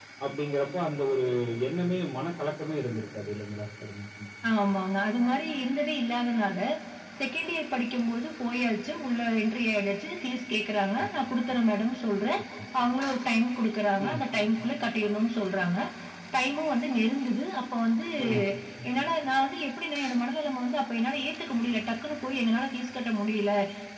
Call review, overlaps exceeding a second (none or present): none